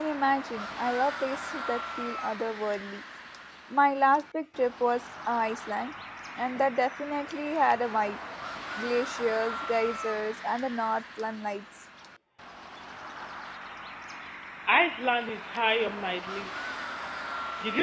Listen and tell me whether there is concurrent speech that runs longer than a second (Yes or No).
No